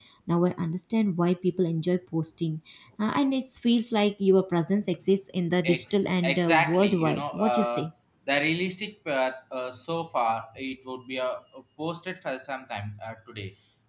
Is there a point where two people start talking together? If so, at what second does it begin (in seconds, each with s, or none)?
5.6 s